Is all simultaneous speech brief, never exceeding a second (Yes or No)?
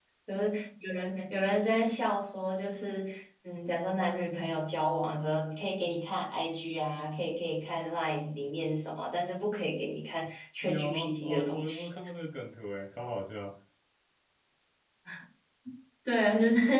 No